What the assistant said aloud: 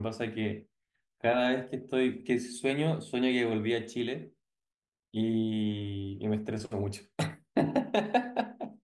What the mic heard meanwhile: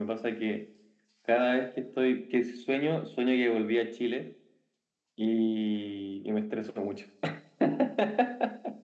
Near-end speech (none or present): none